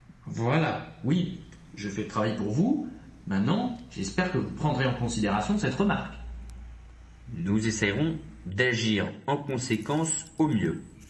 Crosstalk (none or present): none